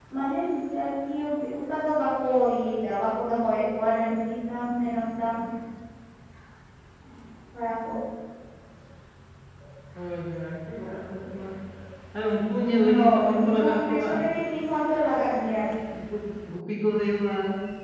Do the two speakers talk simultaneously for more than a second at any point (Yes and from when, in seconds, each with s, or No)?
Yes, from 12.9 s